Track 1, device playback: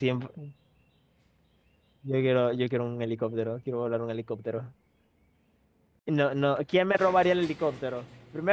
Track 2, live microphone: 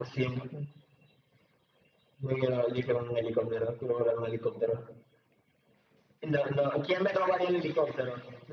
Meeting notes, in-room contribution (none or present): none